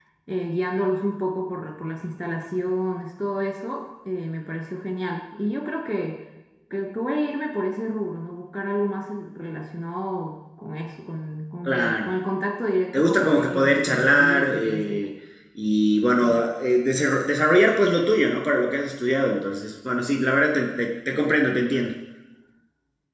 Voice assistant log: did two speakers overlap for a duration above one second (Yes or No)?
Yes